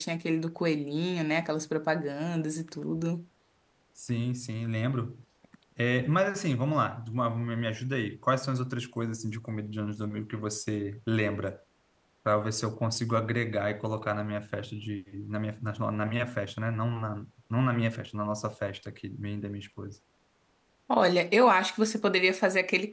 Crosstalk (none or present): none